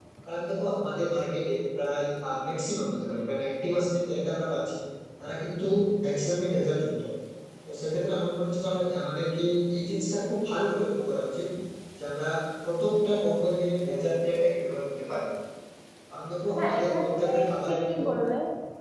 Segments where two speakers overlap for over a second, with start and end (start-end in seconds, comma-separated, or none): 16.6-18.1